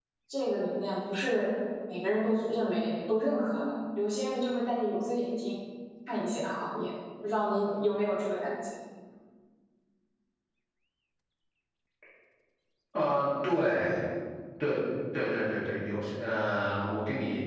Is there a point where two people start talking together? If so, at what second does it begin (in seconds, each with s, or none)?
none